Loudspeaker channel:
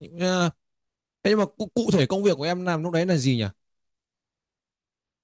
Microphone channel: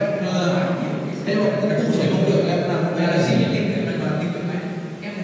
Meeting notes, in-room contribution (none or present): present